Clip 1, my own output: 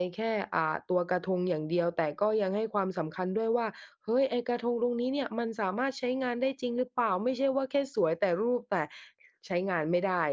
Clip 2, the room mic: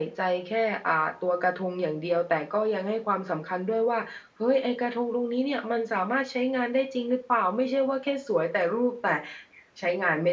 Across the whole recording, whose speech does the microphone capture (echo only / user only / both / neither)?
echo only